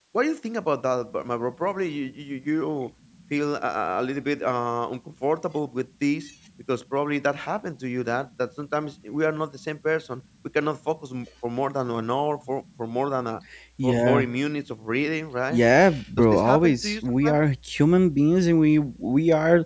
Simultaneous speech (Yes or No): Yes